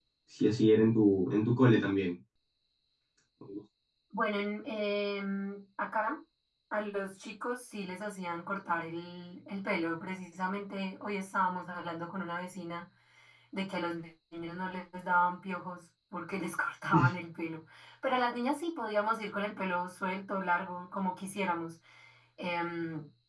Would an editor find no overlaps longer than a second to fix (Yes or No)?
Yes